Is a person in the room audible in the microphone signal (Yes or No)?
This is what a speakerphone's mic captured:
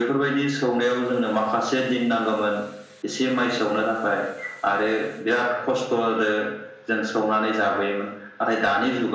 No